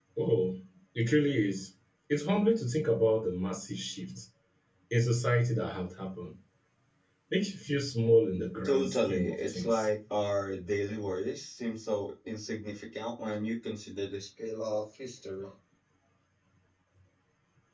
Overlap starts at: 8.6 s

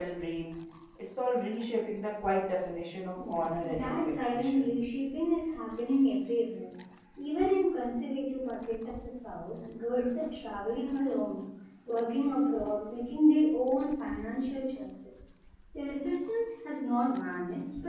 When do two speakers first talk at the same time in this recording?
3.2 s

